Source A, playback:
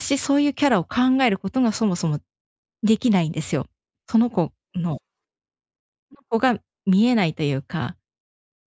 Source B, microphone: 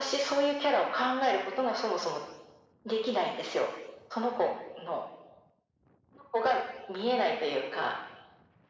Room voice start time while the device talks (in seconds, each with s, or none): none